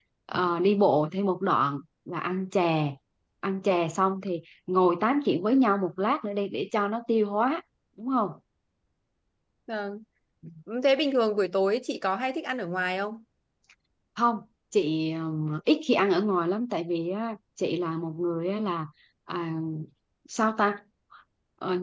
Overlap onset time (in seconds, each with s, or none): none